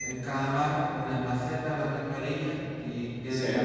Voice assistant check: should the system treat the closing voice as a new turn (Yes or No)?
No